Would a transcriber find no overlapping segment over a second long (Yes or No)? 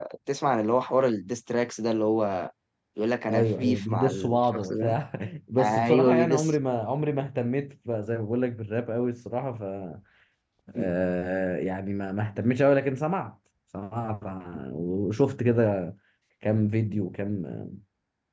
No